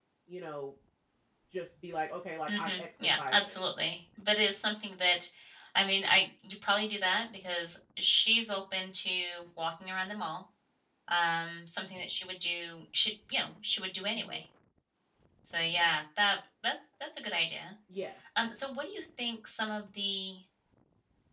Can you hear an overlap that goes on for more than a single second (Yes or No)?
Yes